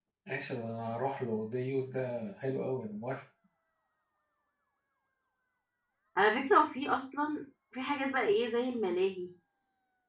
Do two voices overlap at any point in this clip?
No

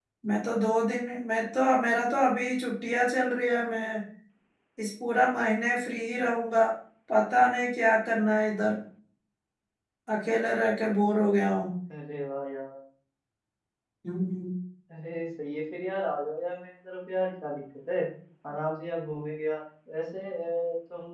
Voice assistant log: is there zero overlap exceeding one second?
Yes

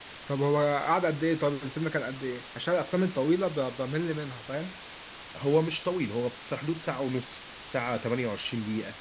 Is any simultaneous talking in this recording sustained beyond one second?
No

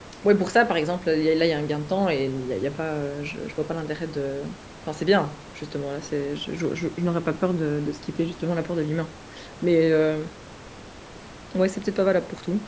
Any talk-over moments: No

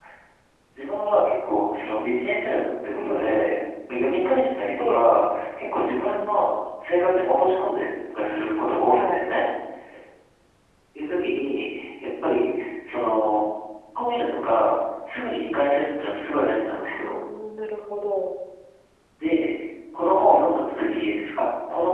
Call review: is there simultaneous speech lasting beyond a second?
No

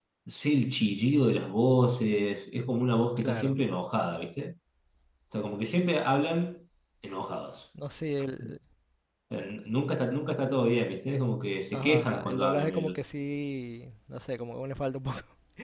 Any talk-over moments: Yes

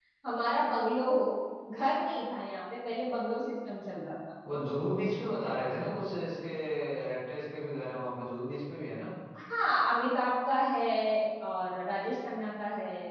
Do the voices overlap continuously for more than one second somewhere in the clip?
No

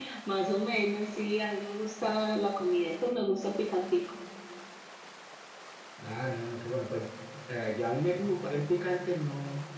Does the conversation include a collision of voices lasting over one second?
No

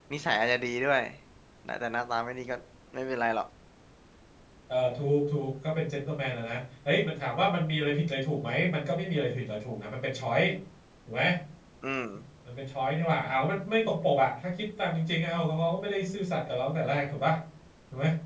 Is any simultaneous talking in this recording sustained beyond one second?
No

